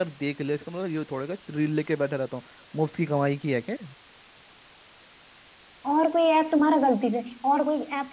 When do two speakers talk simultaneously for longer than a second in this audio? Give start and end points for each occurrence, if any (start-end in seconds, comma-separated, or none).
none